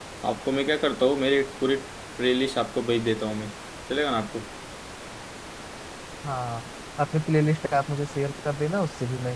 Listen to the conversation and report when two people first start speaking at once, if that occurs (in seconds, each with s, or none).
none